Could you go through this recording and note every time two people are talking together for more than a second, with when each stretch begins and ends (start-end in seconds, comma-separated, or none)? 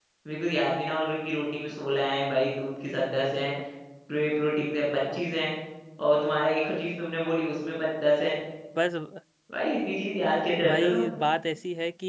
none